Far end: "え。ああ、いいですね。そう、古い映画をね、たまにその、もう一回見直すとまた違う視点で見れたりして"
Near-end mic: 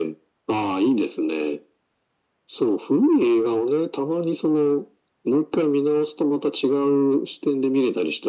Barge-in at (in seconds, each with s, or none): none